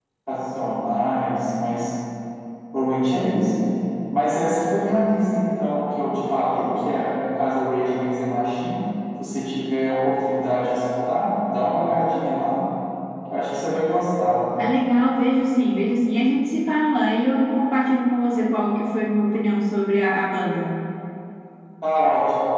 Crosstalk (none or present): none